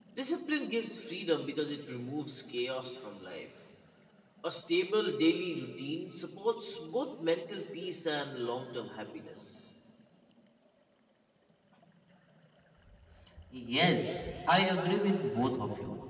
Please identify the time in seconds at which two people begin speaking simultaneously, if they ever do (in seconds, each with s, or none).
none